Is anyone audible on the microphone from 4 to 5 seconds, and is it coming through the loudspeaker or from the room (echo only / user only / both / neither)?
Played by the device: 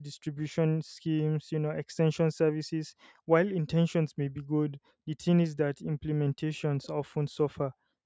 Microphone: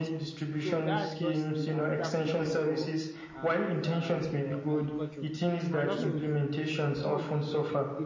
both